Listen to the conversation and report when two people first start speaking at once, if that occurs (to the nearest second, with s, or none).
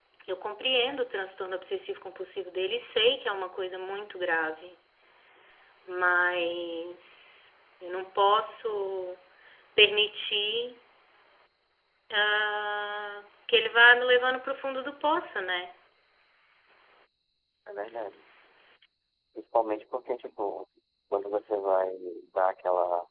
none